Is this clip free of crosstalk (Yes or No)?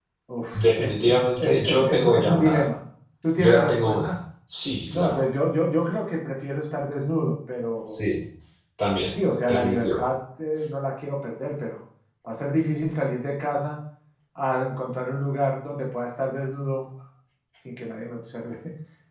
No